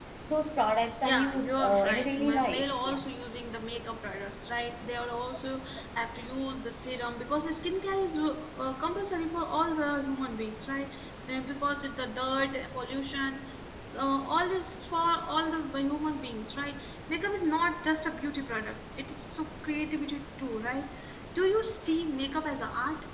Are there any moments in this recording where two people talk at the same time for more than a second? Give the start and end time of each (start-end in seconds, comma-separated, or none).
1.0-3.0